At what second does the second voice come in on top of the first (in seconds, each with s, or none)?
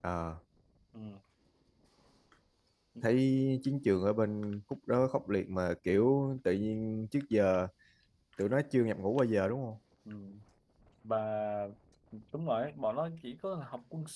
none